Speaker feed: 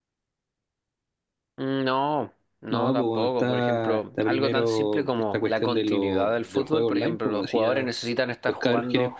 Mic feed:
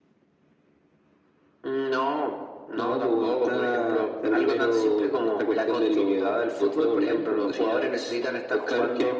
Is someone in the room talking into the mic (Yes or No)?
No